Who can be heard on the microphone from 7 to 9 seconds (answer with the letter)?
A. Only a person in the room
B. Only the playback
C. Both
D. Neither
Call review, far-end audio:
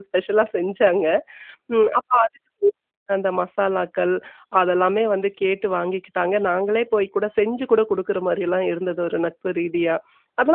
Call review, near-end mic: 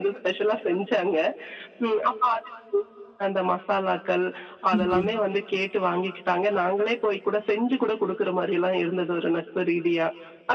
B